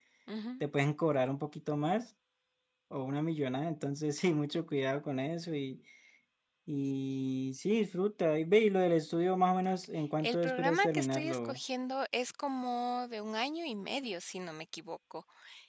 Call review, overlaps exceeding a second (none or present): present